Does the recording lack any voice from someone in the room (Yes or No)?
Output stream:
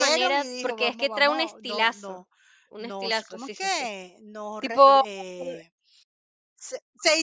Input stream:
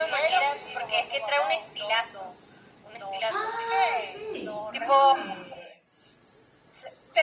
No